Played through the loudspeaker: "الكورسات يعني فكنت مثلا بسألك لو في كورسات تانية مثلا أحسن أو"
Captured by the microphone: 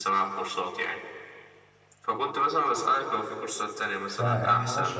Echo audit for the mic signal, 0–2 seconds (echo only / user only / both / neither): echo only